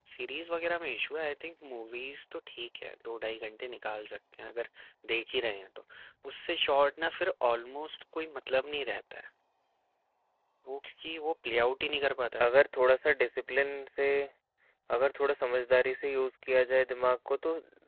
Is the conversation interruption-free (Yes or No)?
Yes